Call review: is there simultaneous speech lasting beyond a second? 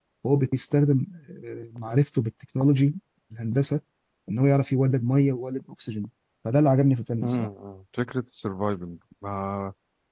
No

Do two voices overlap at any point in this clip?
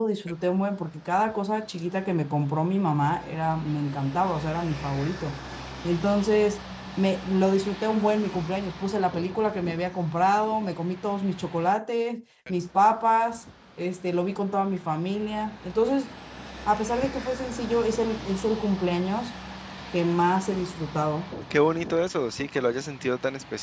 No

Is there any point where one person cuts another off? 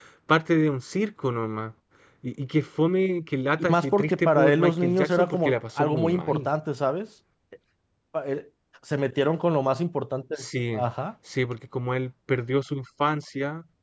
Yes, from 3.6 s

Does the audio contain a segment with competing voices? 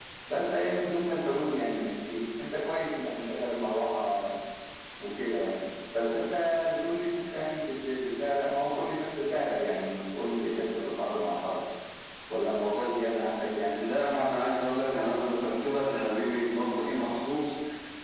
No

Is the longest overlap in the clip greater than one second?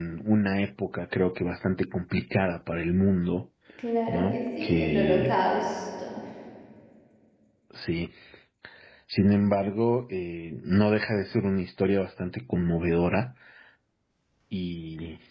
Yes, from 4.1 s

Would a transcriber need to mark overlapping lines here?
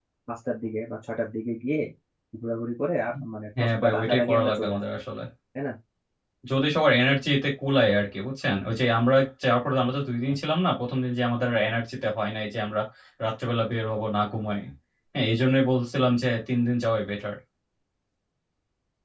Yes, from 3.6 s

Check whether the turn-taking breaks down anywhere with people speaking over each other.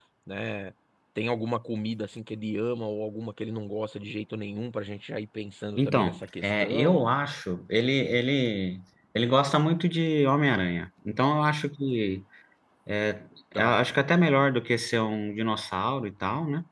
Yes, from 5.8 s

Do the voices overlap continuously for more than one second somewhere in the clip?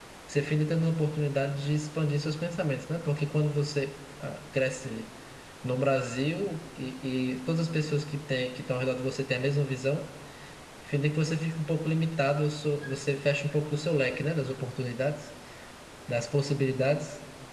No

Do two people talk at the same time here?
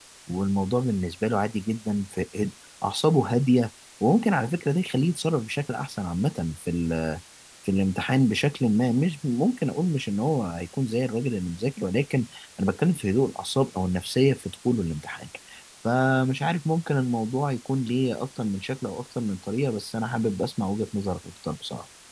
No

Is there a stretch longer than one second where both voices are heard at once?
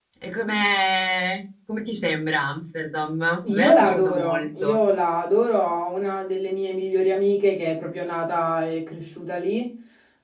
Yes, from 3.4 s

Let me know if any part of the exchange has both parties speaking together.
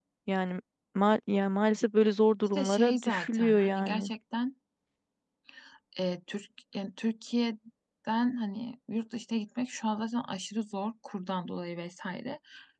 Yes, from 2.6 s

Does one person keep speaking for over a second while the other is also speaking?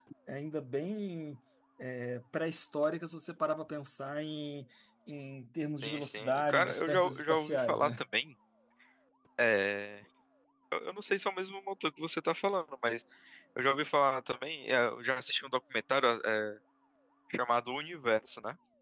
Yes, from 5.8 s

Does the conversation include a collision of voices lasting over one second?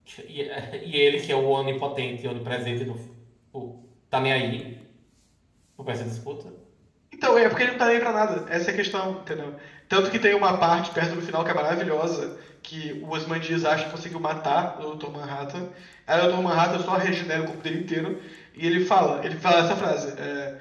No

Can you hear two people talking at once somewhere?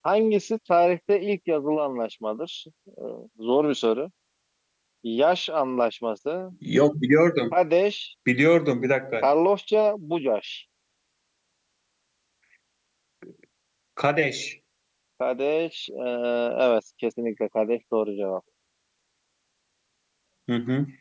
No

